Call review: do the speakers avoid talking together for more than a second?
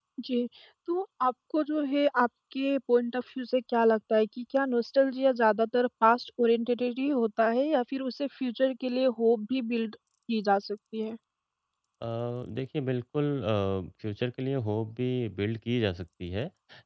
Yes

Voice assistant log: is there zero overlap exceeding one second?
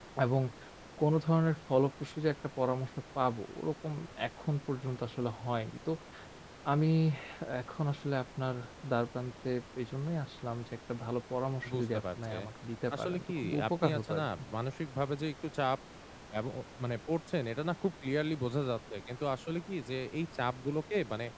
No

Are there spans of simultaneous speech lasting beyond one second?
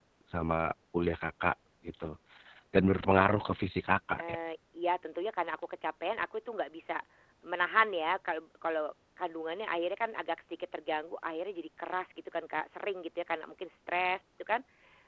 No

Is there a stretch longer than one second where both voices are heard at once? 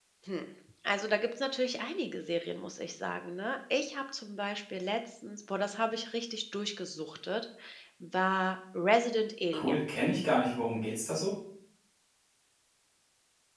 No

